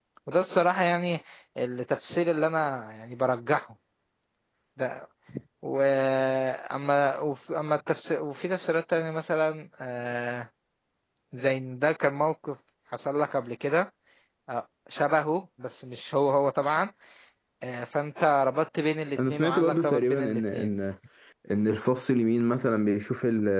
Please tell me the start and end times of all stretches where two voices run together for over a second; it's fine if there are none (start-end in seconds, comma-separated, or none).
19.2-20.7